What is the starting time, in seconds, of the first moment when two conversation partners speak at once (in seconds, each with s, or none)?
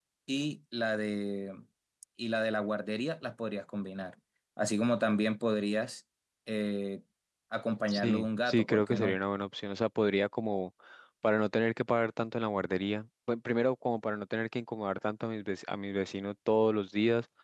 7.9 s